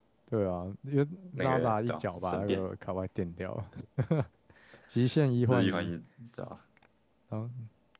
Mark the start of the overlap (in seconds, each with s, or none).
1.3 s